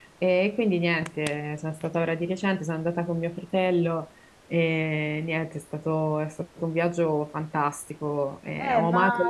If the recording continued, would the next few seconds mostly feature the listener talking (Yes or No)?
Yes